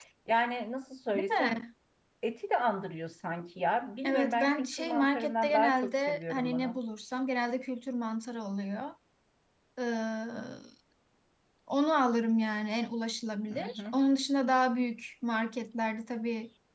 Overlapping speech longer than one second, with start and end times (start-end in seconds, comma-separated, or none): 4.0-6.8